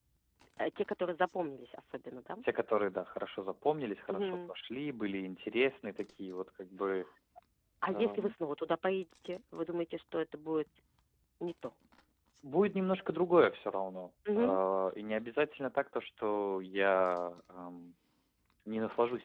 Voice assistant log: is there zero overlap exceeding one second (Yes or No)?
Yes